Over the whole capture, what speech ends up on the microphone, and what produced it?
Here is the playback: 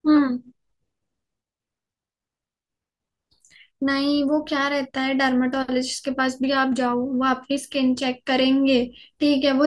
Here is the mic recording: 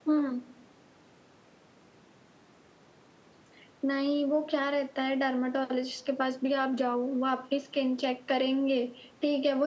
echo only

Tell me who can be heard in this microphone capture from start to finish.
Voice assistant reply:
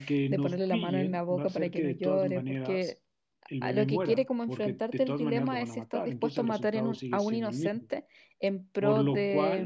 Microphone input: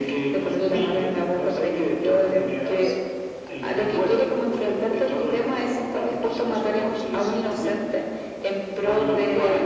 echo only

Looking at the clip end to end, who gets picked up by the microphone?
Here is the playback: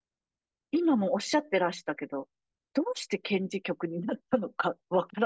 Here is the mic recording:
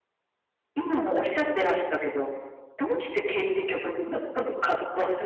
echo only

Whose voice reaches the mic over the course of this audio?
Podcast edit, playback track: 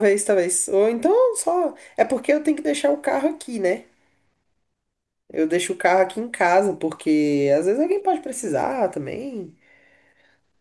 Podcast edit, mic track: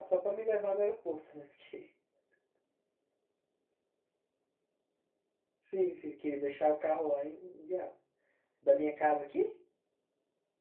user only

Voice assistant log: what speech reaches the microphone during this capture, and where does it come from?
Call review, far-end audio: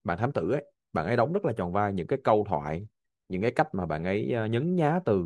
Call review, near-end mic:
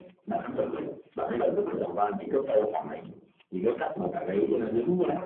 echo only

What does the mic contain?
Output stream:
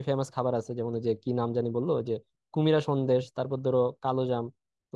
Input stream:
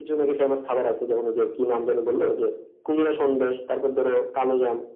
echo only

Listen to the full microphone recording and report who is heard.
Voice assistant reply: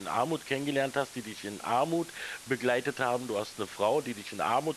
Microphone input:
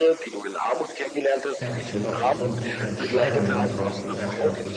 both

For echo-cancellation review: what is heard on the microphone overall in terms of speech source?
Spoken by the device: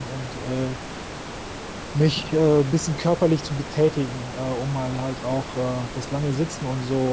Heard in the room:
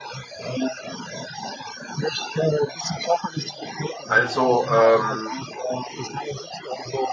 both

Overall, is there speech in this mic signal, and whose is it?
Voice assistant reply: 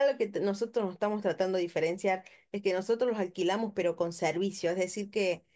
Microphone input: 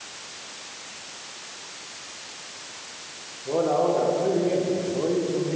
user only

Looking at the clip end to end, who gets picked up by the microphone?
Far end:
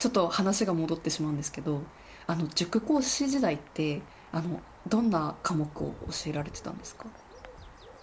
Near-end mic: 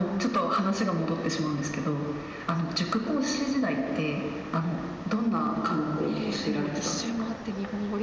both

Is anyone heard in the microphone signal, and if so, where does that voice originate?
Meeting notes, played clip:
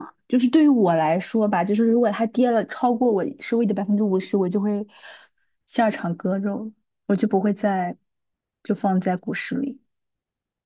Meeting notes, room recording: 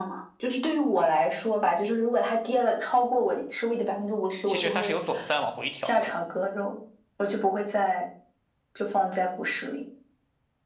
both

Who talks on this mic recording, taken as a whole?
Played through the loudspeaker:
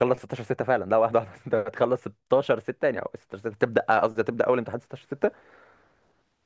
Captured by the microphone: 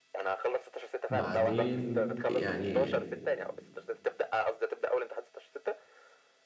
both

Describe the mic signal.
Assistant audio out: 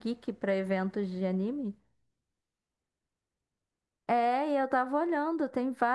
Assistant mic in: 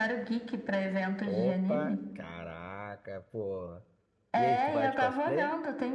both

